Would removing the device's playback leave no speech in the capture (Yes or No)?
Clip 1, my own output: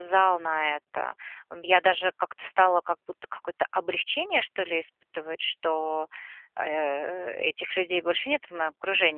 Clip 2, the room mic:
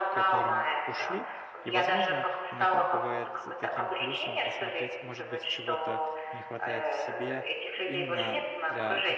No